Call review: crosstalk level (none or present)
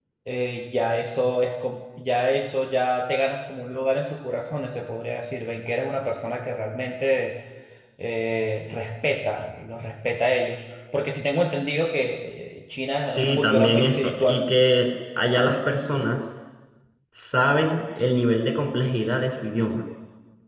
present